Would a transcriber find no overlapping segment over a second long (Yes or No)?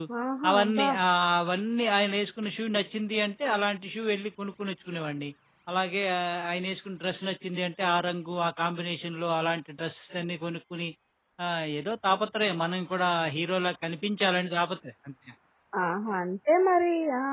Yes